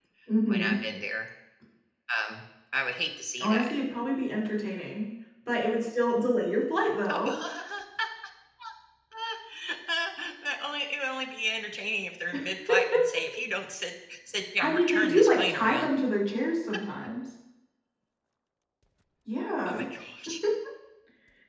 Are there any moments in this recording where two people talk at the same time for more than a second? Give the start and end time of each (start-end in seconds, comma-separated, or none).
14.6-15.9